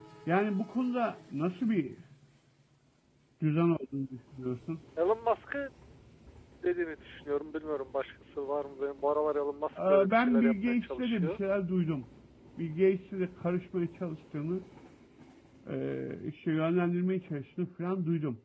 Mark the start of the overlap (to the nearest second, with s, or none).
10 s